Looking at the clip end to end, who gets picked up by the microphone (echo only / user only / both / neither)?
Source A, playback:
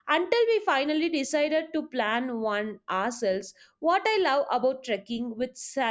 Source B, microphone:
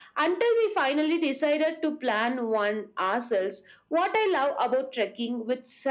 echo only